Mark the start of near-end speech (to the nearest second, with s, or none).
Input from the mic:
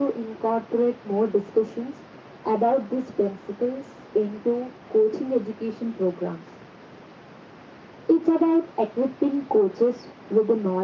none